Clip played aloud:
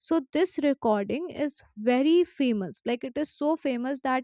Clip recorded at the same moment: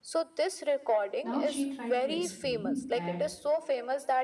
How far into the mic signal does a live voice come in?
1.2 s

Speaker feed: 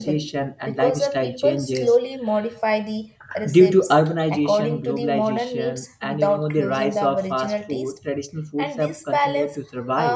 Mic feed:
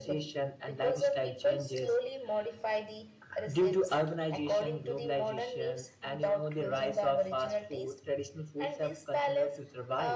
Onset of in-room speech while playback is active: none

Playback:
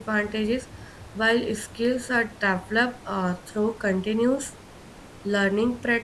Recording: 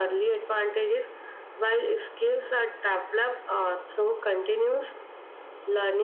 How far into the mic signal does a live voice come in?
none

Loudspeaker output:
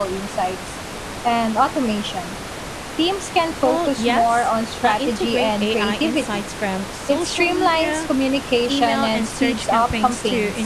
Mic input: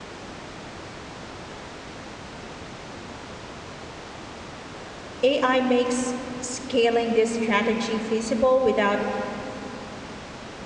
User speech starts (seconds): 5.2 s

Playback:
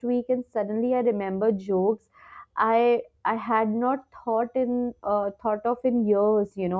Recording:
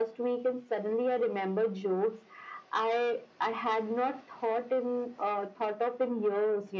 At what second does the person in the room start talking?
none

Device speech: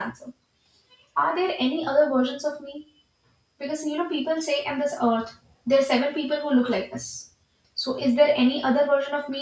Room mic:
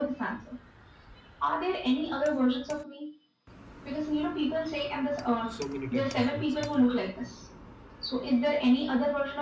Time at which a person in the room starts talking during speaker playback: 5.5 s

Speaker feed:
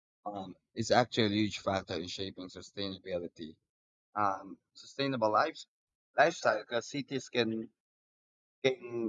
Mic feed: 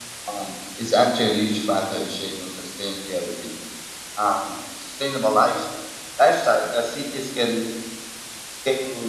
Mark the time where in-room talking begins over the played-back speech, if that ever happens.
none

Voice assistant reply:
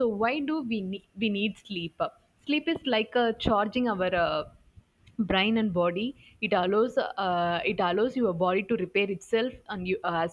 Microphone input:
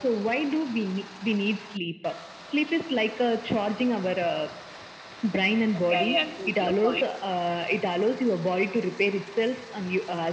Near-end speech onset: 5.7 s

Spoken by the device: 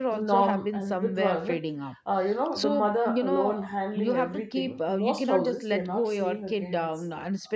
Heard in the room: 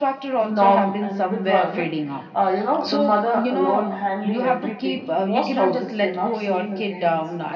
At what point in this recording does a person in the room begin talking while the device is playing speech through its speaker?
none

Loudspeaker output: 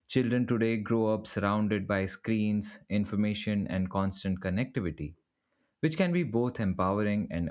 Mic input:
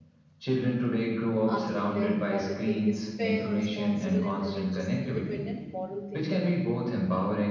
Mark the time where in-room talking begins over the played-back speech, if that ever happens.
1.4 s

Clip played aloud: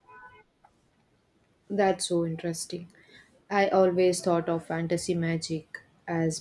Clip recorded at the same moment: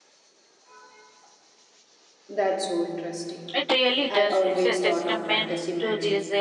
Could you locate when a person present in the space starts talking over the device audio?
3.5 s

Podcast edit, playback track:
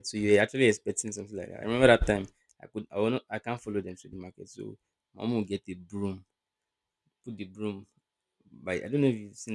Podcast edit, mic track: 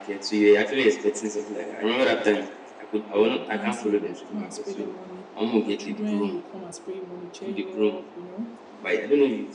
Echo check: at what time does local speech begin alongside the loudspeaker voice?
3.1 s

